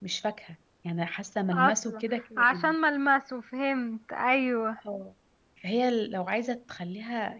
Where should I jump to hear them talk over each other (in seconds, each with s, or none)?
1.5 s